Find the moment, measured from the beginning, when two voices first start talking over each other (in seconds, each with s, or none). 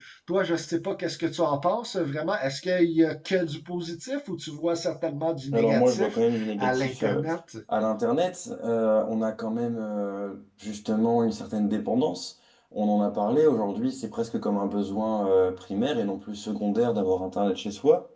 5.5 s